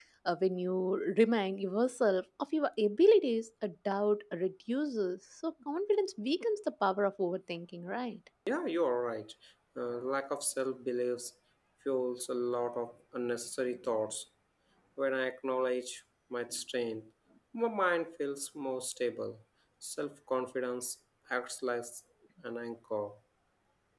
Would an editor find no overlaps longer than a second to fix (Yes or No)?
Yes